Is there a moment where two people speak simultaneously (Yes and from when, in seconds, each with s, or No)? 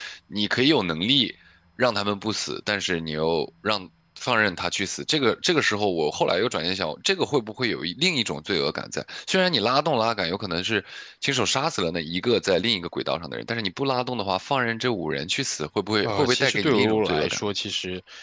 Yes, from 16.0 s